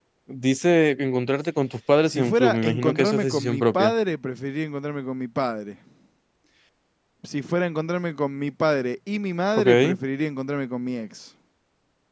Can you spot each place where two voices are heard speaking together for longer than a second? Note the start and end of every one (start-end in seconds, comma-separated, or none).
2.1-3.9